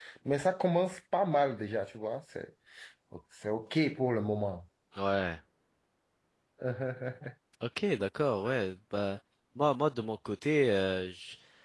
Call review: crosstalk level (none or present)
none